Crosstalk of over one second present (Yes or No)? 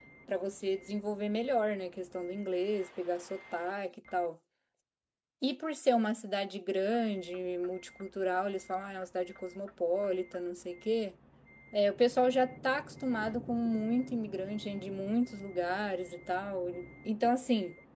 No